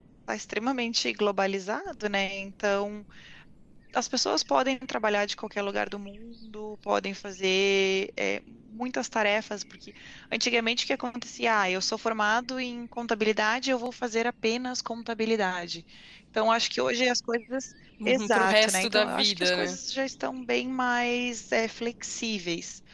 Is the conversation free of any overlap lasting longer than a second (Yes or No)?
No